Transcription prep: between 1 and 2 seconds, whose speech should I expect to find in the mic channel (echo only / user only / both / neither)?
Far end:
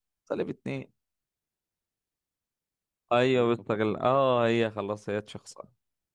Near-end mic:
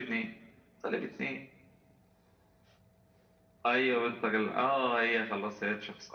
echo only